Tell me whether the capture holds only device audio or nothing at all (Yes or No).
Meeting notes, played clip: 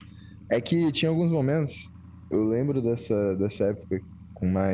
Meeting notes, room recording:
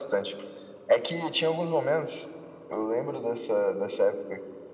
Yes